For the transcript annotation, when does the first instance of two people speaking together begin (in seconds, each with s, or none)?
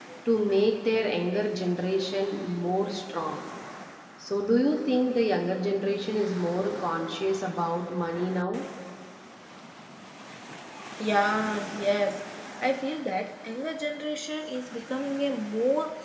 none